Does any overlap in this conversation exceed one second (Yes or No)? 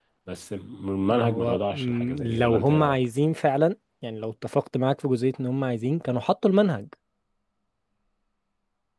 Yes